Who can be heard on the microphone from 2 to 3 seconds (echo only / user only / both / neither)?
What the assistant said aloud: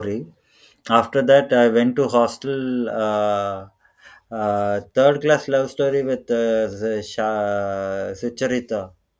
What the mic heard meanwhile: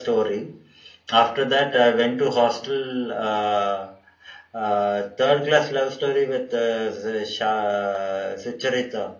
echo only